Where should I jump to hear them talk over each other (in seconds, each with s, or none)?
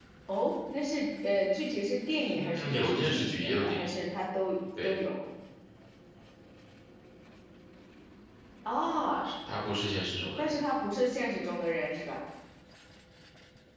2.3 s